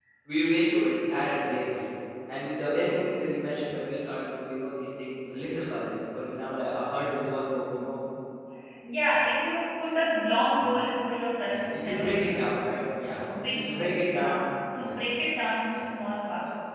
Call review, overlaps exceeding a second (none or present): present